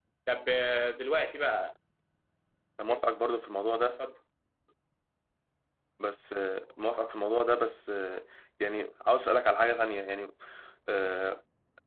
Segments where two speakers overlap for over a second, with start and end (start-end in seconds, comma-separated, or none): none